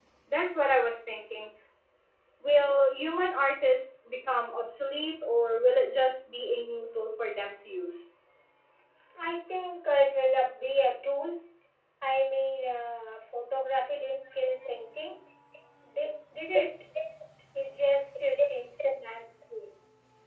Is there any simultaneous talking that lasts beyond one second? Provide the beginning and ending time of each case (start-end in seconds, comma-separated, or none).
none